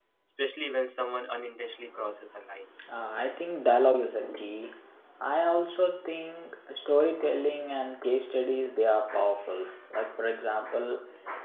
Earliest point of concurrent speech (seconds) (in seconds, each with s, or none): none